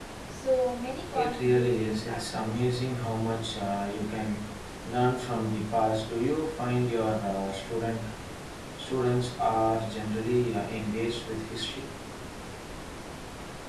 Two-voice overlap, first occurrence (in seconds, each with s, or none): 1.1 s